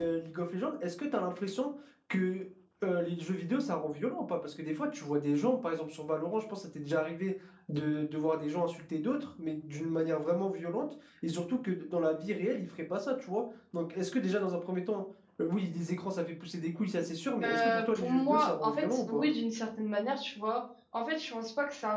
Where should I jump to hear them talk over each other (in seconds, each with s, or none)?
17.4 s